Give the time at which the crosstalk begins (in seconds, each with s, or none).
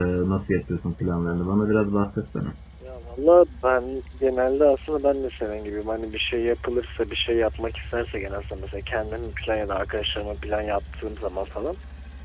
none